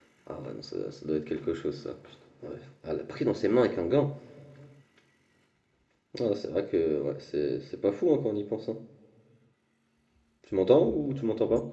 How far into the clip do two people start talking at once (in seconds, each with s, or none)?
none